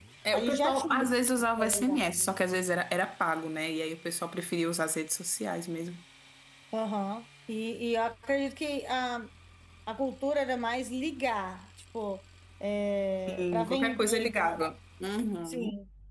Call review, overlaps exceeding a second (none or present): present